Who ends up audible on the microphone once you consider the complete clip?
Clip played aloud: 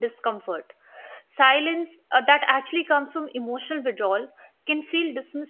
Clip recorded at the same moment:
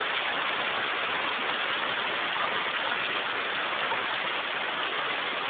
neither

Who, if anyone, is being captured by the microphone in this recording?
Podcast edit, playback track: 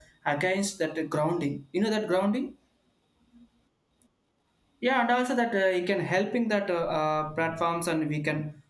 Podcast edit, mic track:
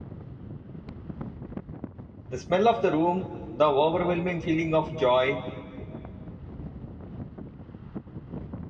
user only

